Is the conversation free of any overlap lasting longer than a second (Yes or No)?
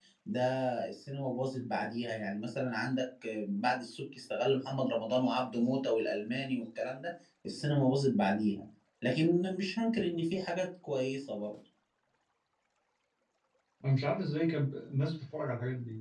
Yes